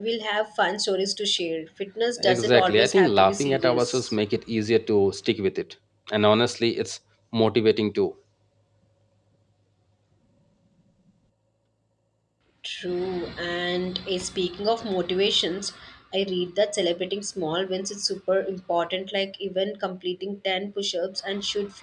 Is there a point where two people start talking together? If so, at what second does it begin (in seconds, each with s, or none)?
2.2 s